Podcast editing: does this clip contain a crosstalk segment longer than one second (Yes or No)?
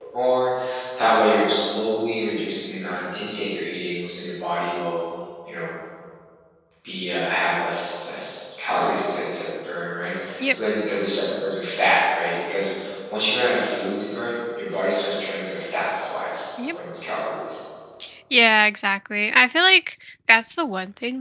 No